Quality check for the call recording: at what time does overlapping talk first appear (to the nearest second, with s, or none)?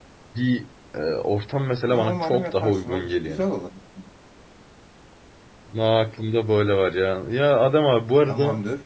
2 s